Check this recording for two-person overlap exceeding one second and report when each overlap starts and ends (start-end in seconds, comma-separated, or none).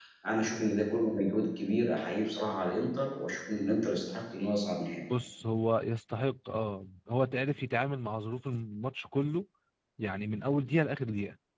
none